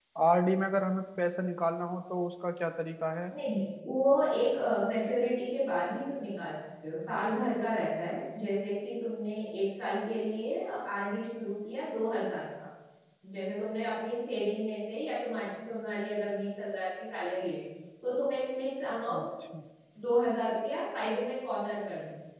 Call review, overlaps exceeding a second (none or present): none